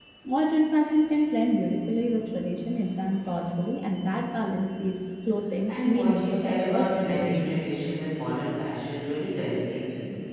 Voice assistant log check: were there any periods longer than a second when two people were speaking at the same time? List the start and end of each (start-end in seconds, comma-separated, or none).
5.7-7.6